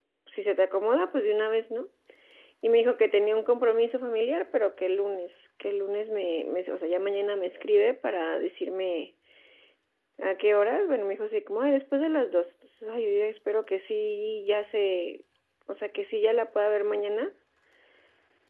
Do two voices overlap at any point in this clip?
No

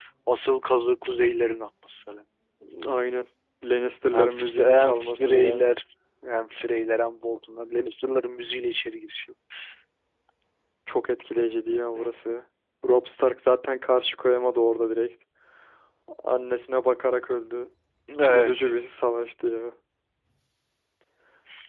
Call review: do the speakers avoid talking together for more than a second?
No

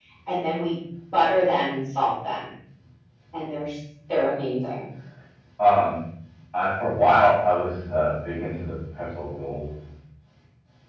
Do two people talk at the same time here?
No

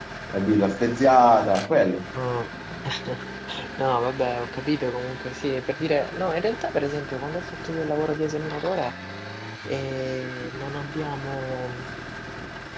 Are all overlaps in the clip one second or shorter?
Yes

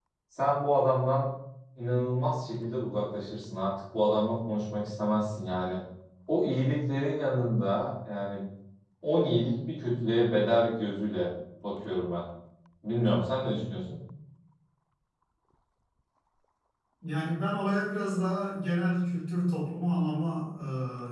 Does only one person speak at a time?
Yes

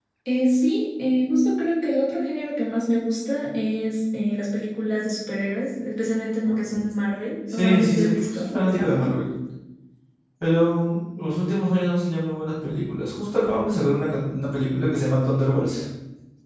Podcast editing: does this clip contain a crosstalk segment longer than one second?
Yes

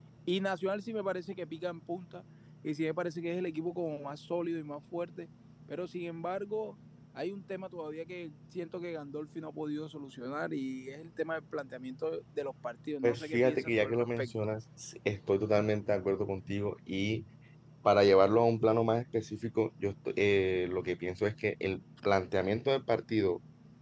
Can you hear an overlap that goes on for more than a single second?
Yes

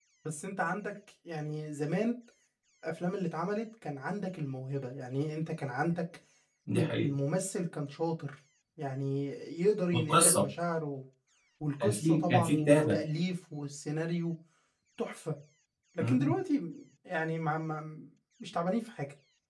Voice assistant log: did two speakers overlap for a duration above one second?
Yes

